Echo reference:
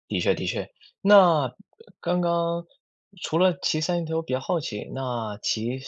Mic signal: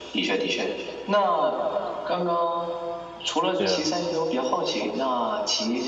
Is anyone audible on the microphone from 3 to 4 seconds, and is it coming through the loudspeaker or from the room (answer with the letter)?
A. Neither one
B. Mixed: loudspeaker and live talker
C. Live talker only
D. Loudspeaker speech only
B